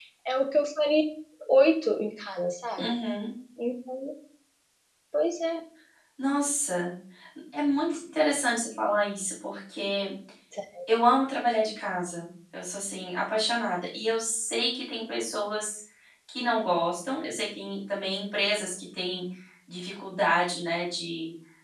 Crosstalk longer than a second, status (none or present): none